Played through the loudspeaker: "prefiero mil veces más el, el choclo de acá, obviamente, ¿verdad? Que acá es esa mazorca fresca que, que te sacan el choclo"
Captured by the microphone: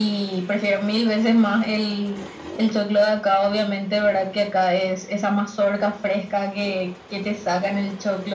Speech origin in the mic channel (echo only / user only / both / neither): echo only